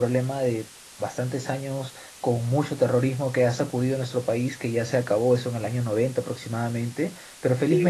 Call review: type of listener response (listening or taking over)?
taking over